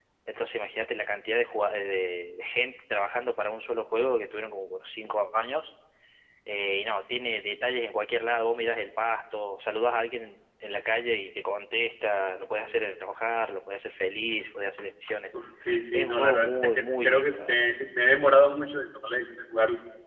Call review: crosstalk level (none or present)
present